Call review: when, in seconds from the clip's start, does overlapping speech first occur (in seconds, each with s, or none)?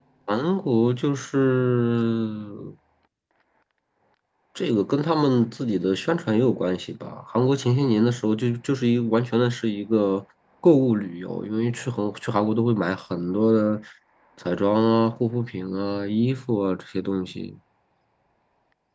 none